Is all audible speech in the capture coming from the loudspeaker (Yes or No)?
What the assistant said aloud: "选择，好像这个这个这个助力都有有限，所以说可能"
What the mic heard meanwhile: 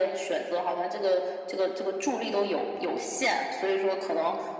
Yes